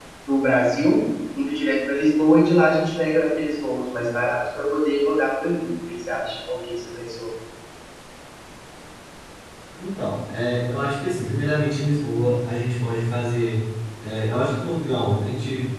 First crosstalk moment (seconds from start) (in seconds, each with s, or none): none